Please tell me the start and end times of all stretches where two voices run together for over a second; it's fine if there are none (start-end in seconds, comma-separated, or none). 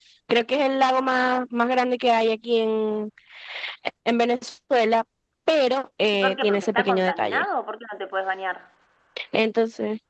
6.1-7.4